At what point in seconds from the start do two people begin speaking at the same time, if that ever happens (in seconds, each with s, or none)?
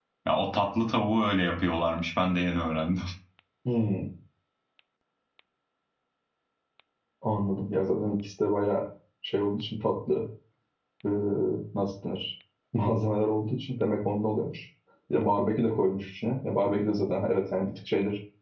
none